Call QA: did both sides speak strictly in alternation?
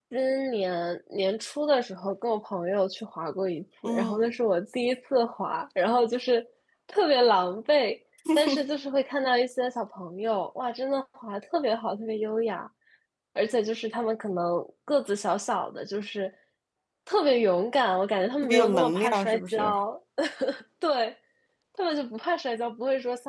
No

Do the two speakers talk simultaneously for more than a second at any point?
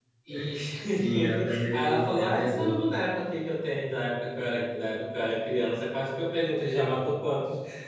Yes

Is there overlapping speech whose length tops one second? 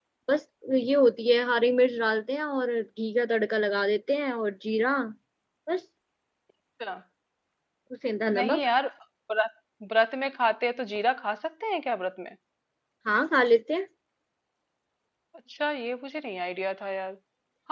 No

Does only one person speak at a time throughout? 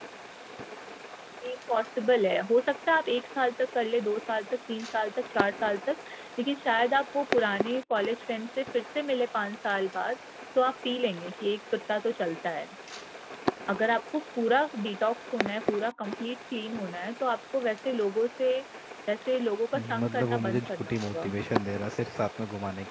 No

